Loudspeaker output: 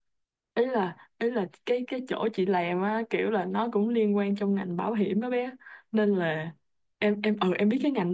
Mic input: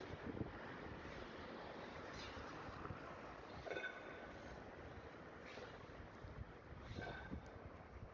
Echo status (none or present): none